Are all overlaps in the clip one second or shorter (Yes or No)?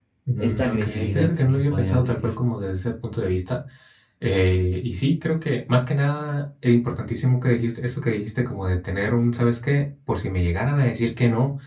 No